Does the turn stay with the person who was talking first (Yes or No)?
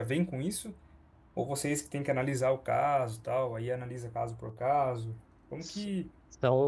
No